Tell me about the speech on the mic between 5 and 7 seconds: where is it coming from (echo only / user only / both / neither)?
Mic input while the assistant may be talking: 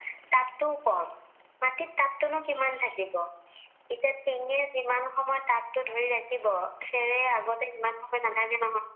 echo only